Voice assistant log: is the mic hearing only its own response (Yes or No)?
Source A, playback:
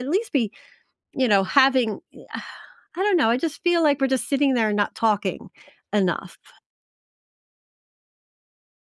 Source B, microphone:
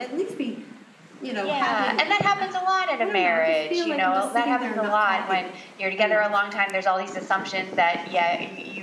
No